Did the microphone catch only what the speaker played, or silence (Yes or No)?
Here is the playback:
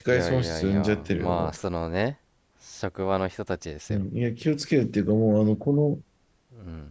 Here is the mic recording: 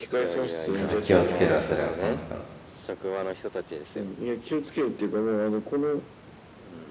No